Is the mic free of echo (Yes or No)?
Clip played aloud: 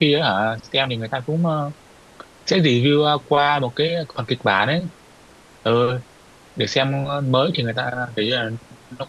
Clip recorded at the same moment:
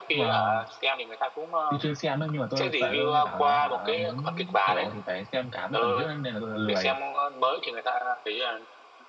No